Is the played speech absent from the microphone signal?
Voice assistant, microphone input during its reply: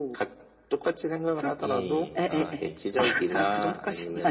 No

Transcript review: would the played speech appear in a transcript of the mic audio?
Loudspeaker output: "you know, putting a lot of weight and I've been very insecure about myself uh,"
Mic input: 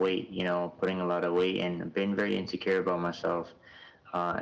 Yes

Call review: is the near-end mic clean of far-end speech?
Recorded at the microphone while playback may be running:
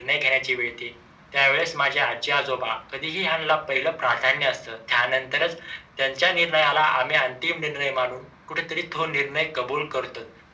No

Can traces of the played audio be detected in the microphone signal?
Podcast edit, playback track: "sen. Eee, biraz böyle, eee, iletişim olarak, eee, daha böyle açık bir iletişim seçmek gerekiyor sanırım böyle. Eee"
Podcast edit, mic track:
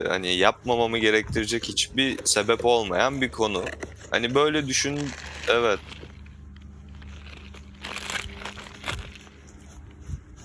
No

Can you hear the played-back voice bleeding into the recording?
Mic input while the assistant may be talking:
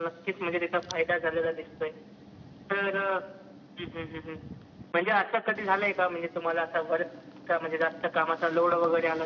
Yes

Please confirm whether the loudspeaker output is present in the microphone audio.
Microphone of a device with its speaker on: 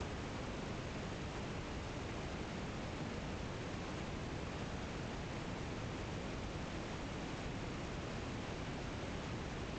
No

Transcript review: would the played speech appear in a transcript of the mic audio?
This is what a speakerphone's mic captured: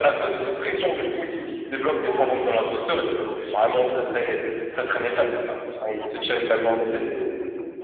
Yes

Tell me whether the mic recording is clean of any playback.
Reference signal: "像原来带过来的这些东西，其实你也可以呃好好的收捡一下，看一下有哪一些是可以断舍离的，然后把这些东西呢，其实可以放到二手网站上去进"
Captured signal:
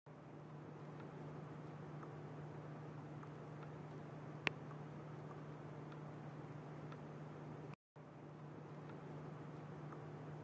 Yes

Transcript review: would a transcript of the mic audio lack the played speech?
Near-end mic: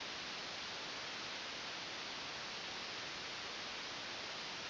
Yes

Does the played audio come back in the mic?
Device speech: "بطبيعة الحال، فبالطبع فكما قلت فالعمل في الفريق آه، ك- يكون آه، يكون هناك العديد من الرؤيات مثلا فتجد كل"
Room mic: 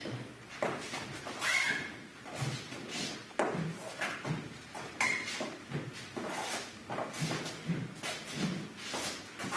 No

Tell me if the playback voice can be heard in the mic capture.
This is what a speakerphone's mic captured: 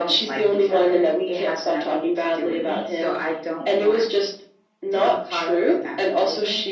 Yes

